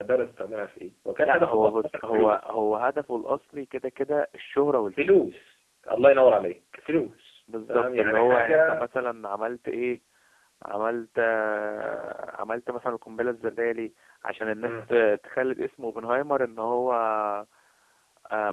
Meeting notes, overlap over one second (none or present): present